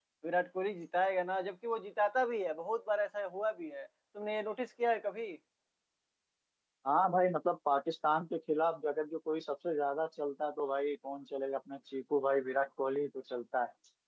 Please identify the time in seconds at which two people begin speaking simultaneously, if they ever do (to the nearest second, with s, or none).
none